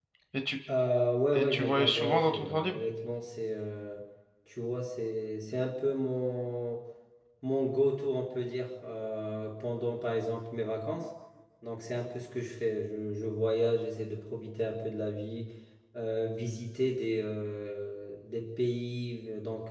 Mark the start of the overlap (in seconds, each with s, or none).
1.3 s